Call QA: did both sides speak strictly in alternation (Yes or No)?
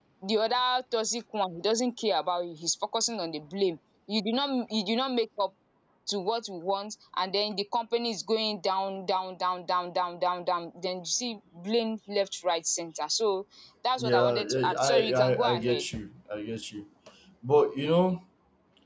No